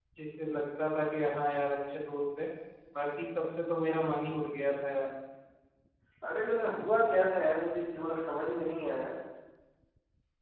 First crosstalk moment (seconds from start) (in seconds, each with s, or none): none